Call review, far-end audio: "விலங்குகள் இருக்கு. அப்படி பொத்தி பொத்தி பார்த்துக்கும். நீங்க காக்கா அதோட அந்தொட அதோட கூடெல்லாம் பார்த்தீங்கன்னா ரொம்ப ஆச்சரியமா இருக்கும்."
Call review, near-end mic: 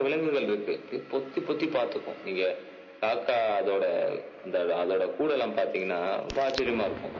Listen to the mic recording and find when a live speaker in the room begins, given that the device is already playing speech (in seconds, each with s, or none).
none